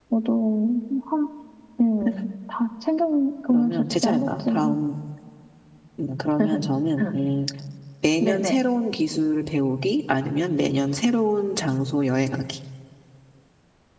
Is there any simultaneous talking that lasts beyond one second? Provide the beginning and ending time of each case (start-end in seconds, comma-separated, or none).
3.5-4.8